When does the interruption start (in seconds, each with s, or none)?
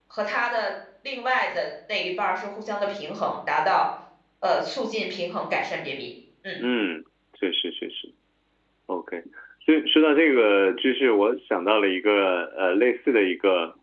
none